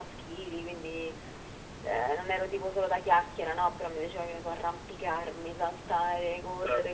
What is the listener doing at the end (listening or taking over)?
listening